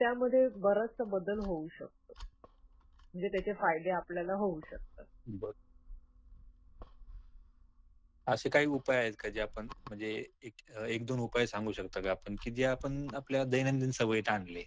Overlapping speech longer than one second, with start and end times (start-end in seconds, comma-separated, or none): none